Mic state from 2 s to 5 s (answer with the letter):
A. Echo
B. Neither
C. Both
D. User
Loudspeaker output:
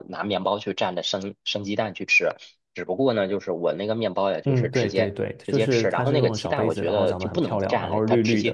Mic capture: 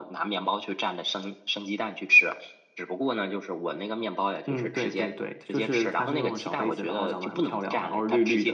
A